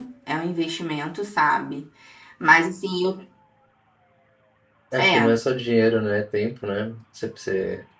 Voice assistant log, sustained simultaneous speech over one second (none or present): none